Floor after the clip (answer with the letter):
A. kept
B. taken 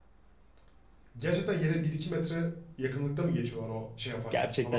B